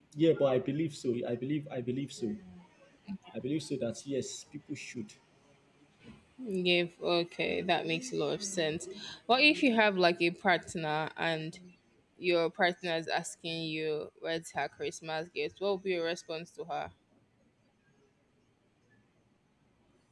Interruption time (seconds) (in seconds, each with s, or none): none